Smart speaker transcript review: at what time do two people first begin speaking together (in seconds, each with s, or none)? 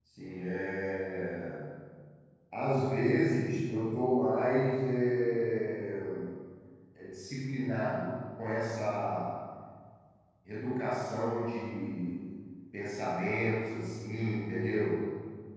none